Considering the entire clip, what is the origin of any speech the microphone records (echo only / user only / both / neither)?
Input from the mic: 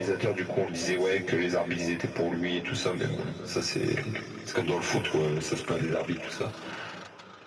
echo only